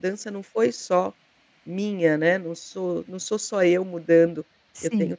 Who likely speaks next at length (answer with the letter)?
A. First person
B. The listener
A